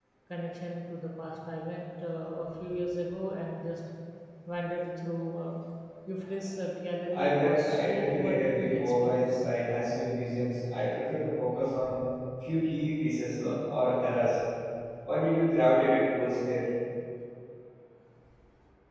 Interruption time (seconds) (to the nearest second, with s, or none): 7 s